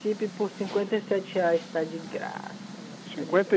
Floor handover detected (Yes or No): Yes